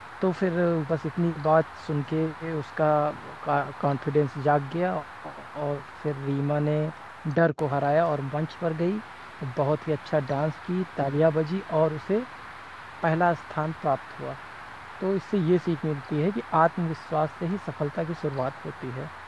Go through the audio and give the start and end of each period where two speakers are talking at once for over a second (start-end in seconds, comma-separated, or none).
none